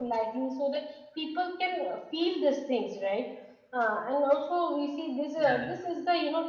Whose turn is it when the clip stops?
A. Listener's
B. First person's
B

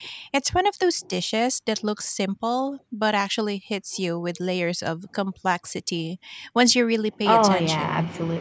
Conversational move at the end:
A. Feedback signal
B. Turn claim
B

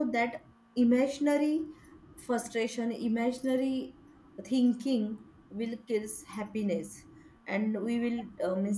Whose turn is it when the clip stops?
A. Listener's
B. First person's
B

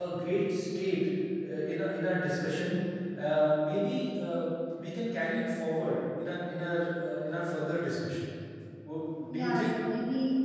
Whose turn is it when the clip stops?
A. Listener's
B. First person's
A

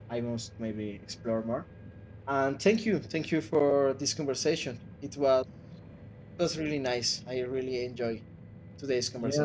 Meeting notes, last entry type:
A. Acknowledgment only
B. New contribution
B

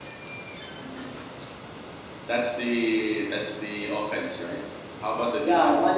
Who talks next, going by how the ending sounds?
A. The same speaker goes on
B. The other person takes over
B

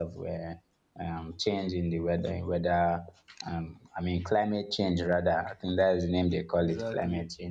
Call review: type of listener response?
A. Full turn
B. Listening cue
A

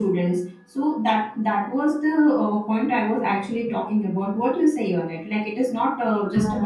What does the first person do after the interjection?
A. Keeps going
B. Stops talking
A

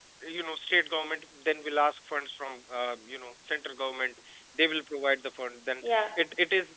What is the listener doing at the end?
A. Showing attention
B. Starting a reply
A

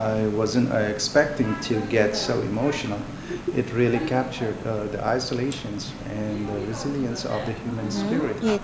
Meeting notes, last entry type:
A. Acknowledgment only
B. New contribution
B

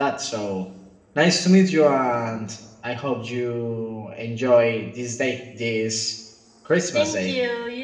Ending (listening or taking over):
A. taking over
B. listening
A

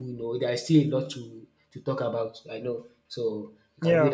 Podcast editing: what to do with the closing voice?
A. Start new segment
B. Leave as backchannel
A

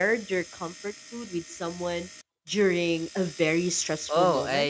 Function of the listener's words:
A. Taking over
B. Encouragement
A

